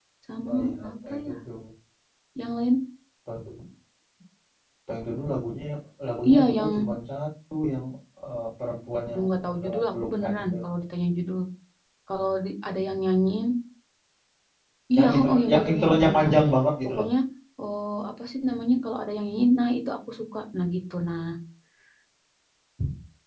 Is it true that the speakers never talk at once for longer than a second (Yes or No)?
No